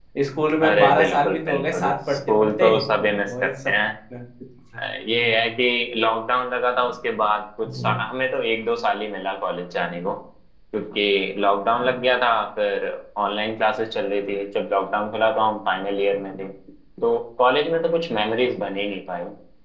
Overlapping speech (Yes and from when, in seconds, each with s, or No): Yes, from 0.6 s